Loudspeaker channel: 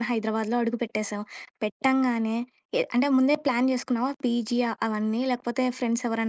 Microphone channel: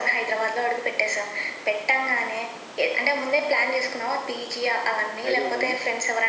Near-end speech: present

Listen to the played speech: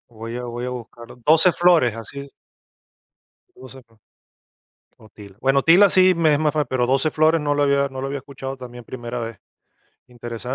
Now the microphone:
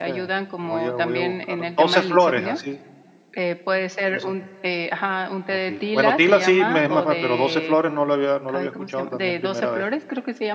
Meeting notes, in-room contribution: present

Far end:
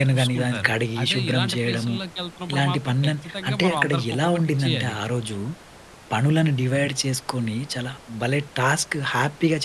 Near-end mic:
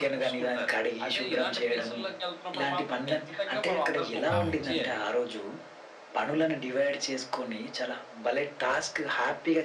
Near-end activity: present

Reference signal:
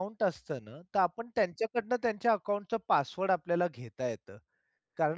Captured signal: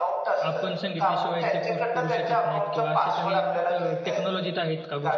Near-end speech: present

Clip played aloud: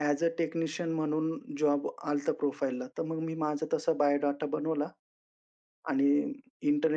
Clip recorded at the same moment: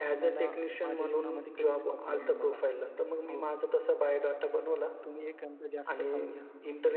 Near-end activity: present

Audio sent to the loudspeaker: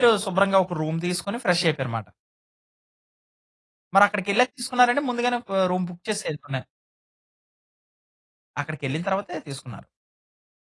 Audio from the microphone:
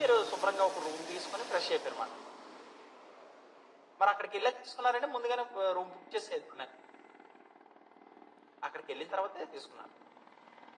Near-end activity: none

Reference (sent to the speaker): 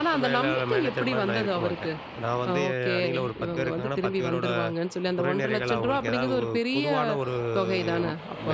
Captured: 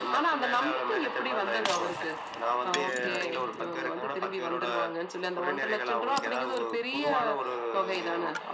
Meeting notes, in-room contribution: none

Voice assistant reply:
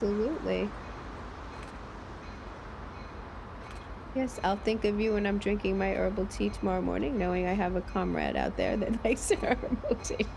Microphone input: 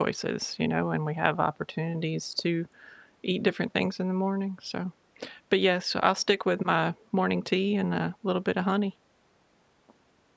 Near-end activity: present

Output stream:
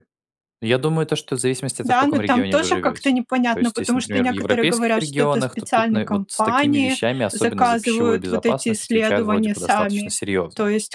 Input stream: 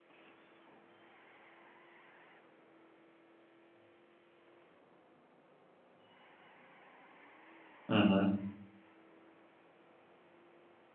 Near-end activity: present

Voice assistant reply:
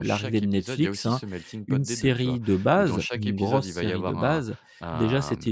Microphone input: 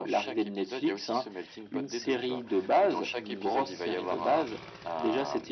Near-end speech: none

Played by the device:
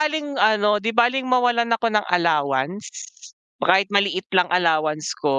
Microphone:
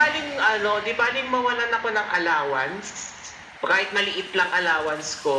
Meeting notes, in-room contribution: none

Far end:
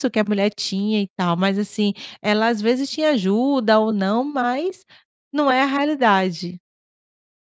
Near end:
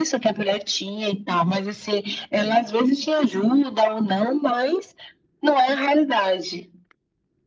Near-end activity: none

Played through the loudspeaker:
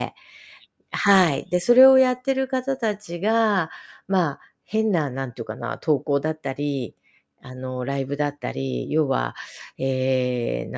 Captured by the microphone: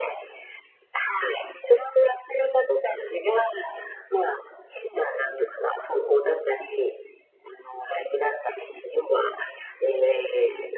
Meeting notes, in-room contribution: none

